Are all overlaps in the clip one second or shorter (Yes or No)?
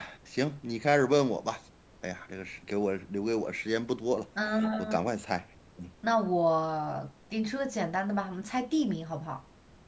Yes